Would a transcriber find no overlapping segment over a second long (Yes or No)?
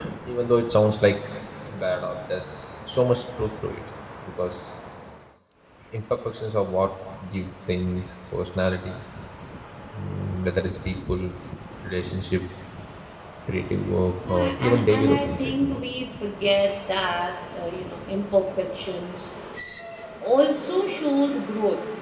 No